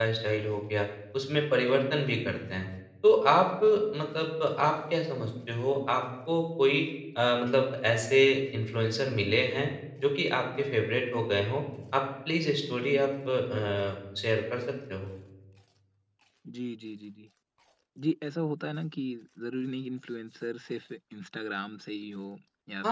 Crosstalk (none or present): none